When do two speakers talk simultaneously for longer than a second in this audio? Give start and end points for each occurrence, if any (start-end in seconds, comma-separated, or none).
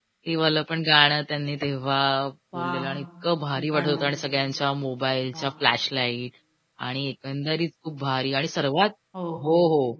none